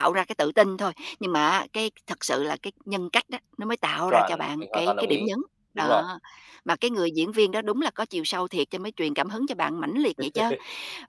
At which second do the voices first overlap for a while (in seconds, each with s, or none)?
4.1 s